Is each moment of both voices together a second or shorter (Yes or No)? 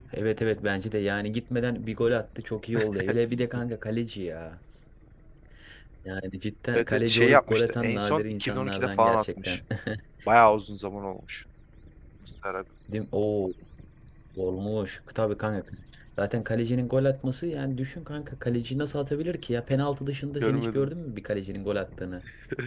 No